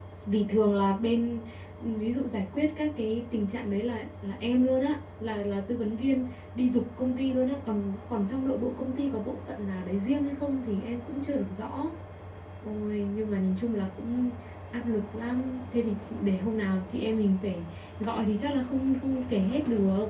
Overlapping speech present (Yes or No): No